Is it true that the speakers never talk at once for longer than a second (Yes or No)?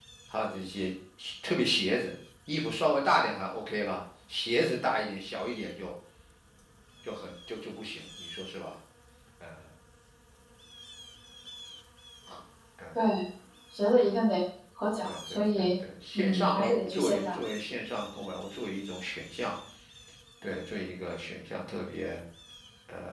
No